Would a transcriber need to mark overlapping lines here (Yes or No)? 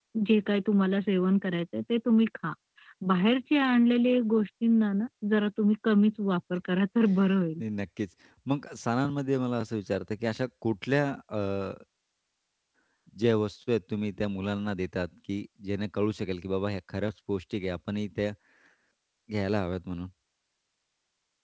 No